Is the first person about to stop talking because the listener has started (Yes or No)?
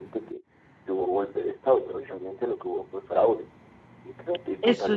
Yes